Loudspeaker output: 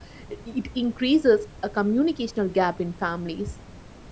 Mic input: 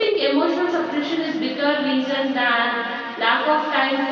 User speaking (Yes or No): Yes